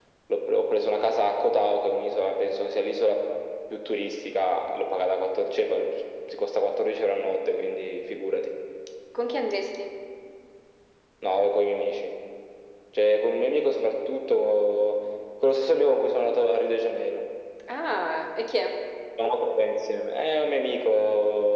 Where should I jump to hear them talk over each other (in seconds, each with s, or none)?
none